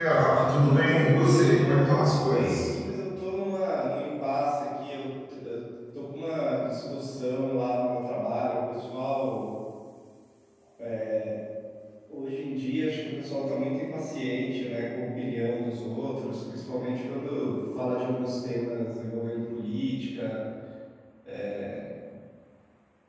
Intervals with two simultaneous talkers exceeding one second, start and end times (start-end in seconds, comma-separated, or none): 0.6-2.7